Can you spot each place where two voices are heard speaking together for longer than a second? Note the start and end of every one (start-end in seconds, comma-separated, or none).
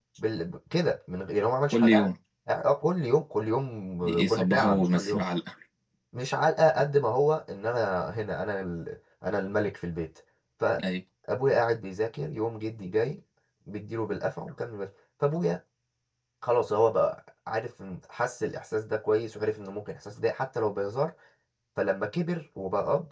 4.0-5.2